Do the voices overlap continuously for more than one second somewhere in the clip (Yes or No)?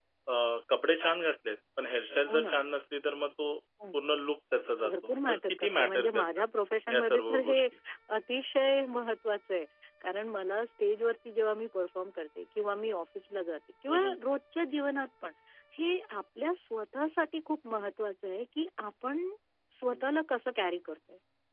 Yes